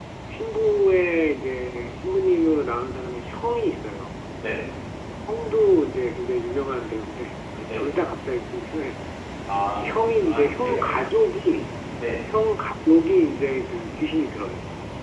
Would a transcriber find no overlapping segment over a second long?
No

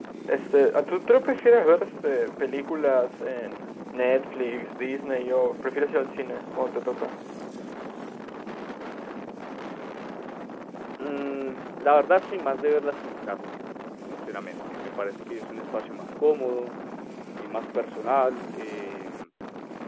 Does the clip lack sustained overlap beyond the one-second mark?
Yes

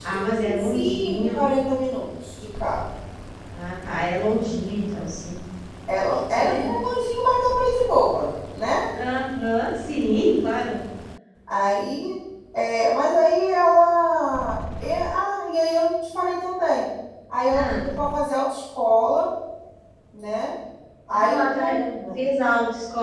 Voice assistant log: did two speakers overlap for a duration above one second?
Yes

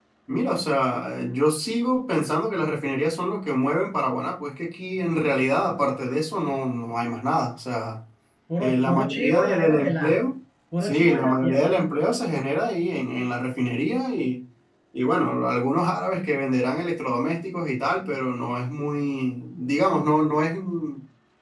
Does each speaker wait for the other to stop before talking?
No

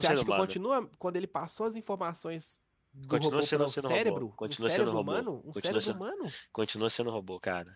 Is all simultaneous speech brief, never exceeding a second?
No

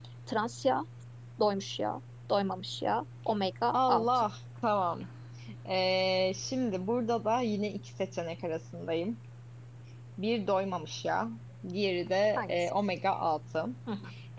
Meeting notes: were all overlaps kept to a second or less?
Yes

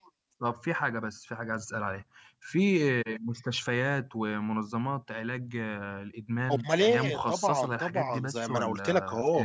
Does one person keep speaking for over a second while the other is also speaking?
Yes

